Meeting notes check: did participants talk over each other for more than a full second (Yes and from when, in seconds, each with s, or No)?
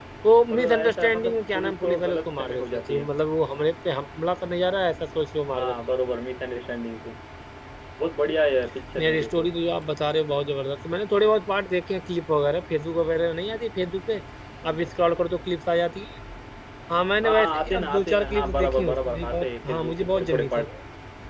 Yes, from 0.5 s